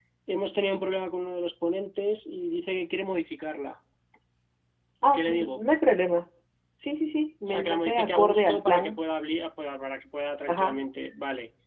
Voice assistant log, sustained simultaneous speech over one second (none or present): present